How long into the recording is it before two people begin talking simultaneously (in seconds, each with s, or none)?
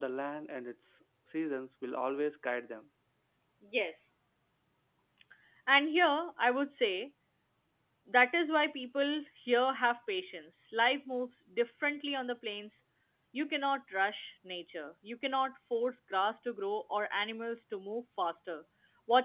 none